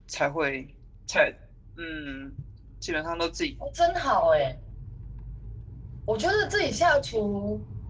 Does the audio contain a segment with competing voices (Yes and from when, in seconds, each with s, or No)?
No